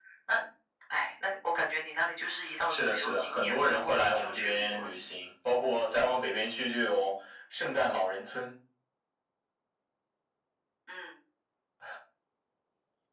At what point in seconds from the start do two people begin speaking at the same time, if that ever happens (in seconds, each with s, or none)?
2.4 s